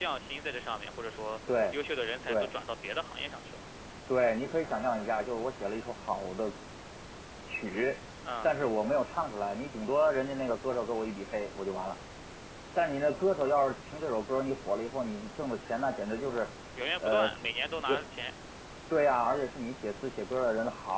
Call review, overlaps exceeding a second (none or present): none